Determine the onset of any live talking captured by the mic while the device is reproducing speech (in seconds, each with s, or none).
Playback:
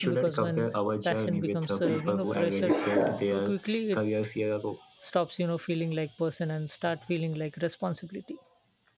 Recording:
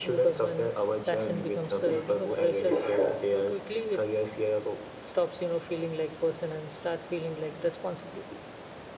none